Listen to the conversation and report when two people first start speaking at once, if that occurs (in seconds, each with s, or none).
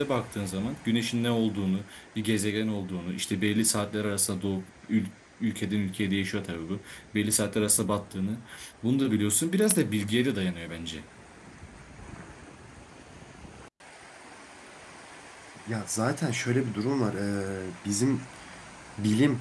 none